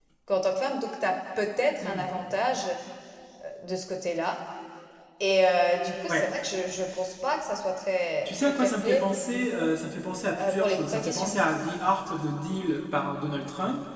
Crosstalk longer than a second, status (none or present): present